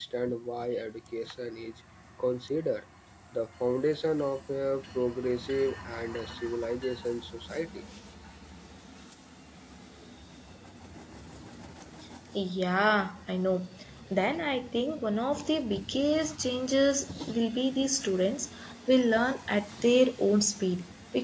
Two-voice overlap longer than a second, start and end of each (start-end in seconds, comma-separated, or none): none